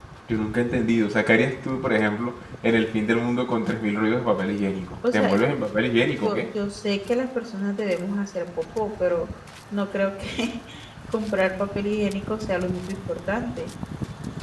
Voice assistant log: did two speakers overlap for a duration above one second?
No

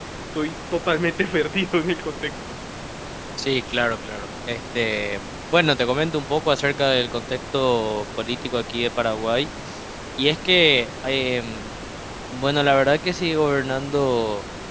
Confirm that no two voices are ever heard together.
Yes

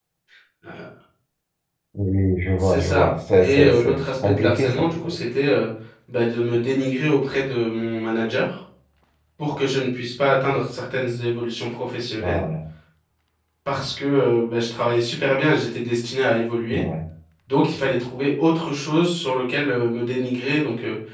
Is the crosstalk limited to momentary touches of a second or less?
No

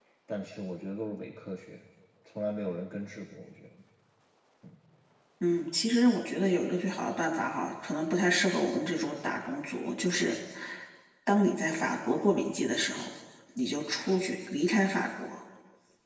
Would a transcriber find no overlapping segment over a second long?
Yes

